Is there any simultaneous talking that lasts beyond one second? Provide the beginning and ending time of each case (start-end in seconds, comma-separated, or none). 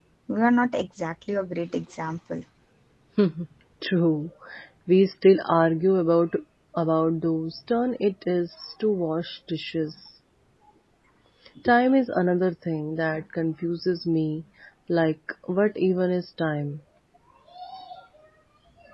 none